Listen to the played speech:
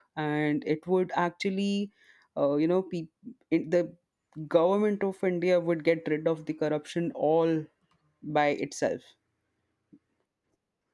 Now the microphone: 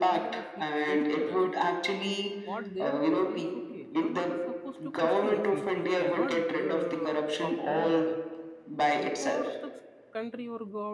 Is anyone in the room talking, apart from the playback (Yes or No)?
Yes